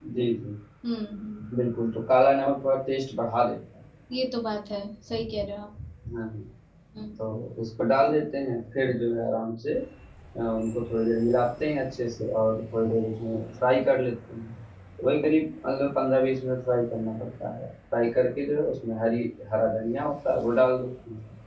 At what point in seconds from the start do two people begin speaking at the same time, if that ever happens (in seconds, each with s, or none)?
none